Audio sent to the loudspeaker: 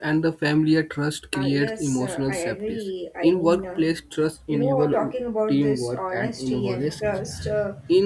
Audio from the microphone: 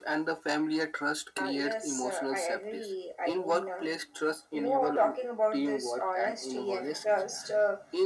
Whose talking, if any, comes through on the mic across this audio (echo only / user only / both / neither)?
echo only